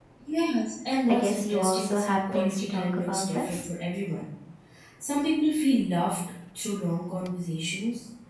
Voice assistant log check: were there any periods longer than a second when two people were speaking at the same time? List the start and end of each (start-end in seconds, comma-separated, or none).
1.1-3.6